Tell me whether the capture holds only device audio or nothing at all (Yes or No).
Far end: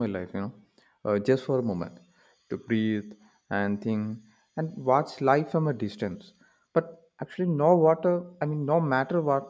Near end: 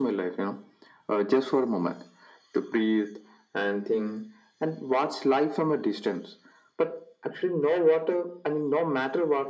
Yes